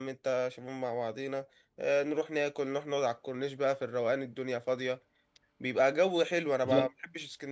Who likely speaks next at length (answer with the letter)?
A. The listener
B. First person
B